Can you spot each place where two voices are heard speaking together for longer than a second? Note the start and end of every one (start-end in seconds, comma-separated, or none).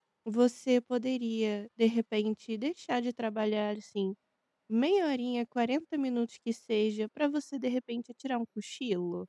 none